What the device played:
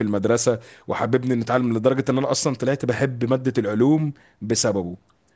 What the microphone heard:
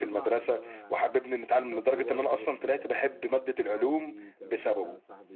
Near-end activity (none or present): present